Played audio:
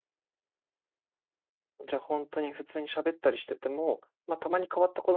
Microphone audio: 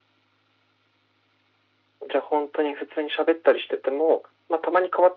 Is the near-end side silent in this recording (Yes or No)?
Yes